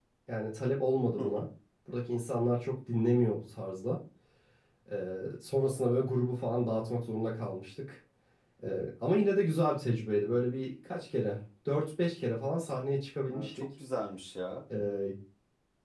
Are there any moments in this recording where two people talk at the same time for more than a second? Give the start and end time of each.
none

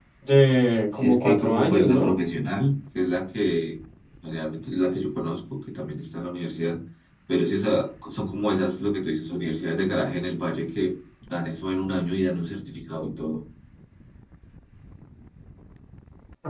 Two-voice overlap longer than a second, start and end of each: 0.9-2.1

